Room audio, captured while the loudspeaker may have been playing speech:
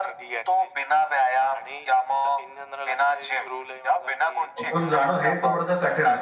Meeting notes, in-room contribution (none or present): present